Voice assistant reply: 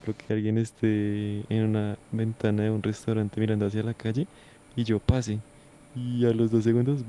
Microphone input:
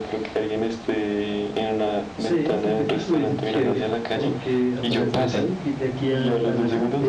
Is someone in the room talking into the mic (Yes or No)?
Yes